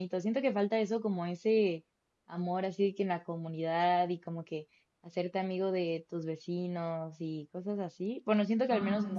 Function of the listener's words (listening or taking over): listening